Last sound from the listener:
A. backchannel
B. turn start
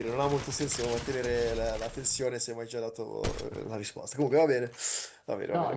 B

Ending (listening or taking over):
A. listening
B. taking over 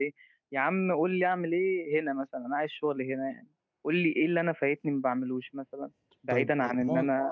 B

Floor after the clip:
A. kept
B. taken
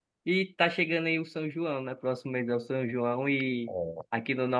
A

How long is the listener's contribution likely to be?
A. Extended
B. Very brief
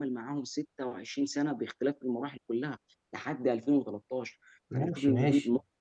A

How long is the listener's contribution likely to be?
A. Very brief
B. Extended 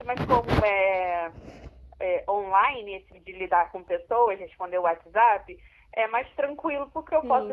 B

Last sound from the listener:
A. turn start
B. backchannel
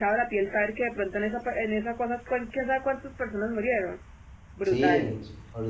A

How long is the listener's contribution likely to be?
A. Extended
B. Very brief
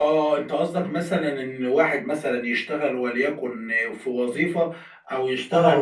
B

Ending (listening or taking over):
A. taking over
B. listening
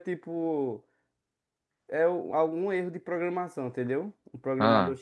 B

